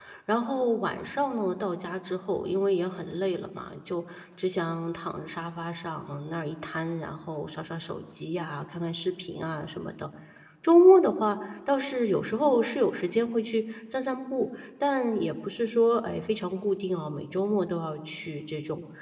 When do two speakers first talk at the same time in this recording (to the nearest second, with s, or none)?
none